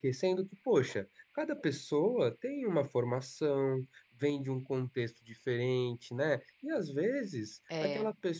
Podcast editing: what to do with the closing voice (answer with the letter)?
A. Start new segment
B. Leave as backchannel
B